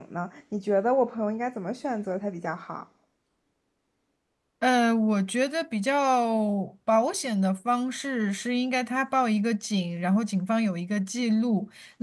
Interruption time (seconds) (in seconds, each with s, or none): none